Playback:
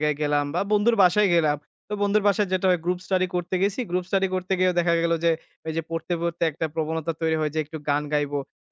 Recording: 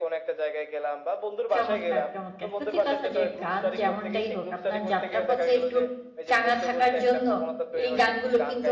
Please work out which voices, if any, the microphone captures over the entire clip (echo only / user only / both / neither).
both